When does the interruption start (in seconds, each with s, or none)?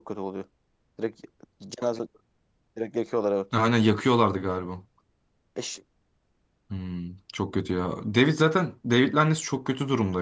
none